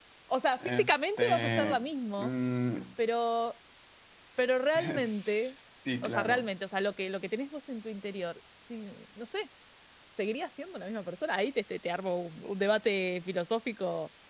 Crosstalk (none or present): present